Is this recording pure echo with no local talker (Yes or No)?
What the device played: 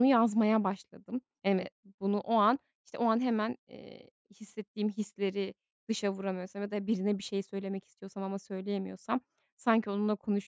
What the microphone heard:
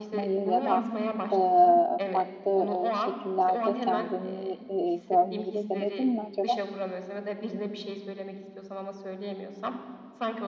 No